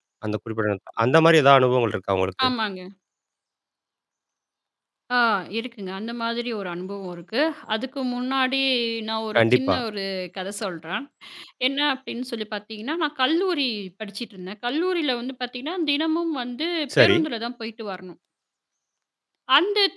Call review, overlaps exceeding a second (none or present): none